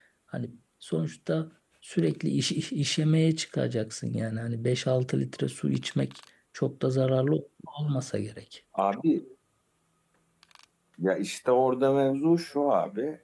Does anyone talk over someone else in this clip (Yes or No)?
No